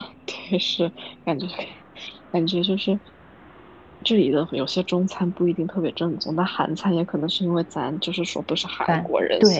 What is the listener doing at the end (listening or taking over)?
taking over